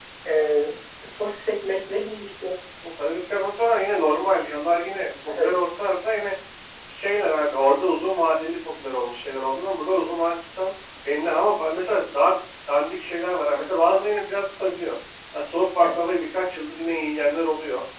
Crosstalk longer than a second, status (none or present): none